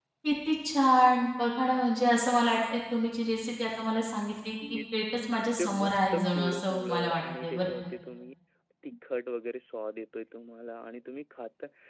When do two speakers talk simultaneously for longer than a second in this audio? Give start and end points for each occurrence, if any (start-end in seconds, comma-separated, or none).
5.6-7.7